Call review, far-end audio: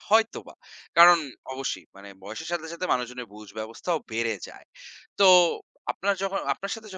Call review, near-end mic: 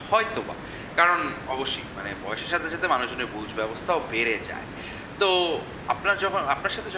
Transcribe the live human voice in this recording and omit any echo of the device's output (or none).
none